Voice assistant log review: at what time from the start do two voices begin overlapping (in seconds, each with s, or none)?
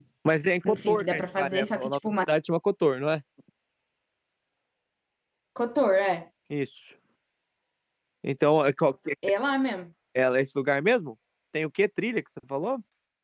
0.6 s